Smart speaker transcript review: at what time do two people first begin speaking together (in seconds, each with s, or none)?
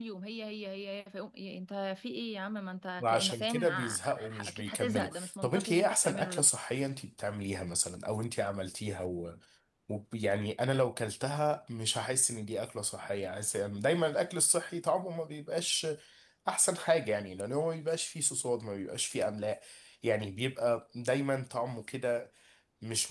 3.0 s